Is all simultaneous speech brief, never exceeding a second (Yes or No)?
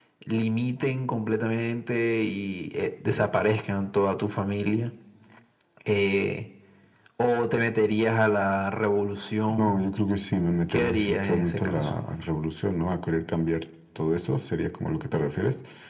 No